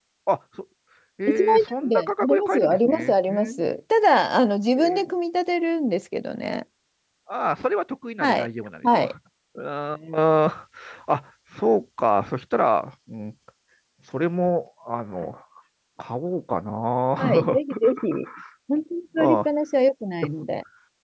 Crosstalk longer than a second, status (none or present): present